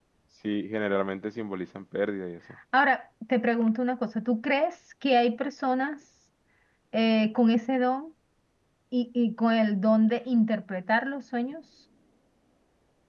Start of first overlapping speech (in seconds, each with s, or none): none